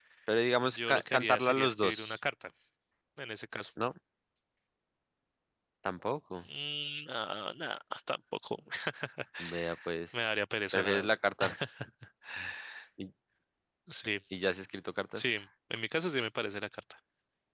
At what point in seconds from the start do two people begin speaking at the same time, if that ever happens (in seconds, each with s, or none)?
0.6 s